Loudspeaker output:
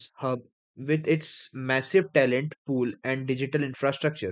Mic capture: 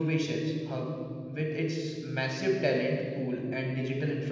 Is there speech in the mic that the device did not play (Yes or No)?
No